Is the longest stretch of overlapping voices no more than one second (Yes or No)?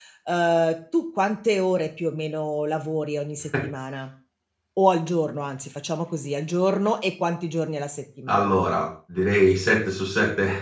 Yes